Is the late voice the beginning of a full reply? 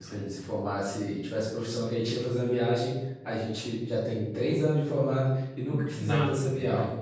Yes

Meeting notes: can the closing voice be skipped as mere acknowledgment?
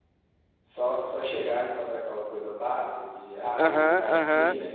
No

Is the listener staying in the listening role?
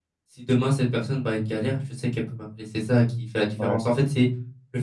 Yes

